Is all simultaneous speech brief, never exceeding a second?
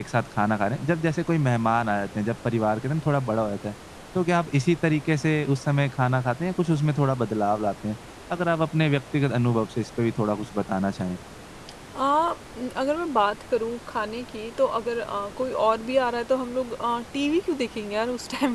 Yes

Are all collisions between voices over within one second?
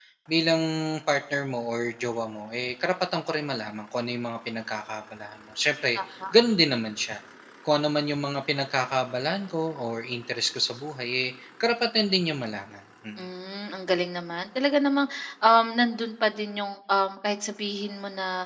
Yes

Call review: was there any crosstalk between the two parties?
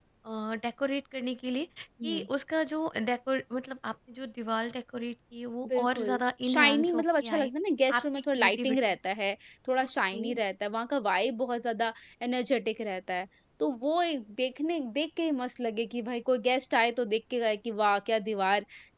Yes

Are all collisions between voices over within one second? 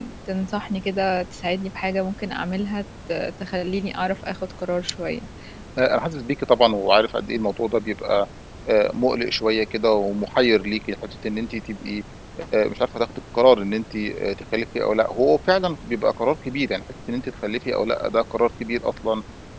Yes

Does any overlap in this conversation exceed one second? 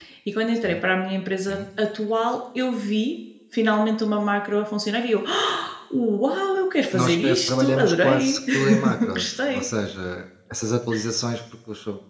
Yes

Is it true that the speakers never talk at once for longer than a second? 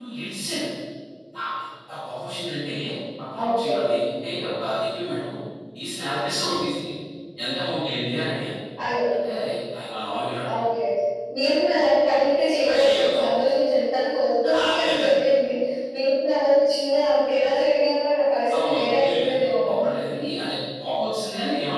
No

